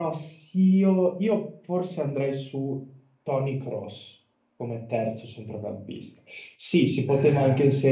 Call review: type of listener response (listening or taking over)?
listening